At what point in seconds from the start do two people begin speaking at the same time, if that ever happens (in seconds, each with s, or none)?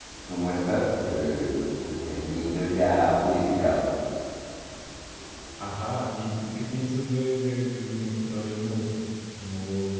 none